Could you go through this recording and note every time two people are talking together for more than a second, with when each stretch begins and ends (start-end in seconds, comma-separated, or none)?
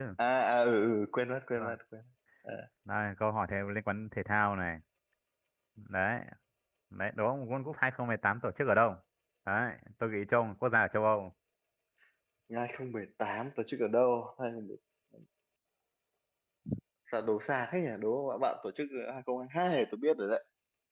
none